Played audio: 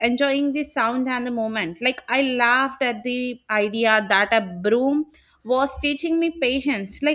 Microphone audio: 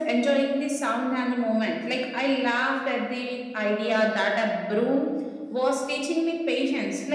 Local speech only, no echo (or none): none